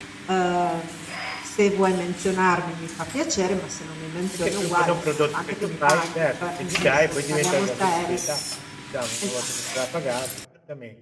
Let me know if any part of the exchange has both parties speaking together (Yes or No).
Yes